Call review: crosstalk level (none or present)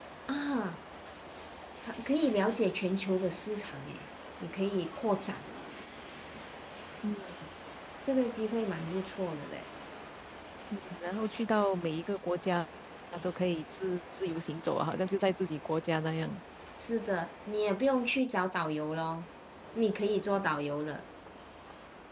none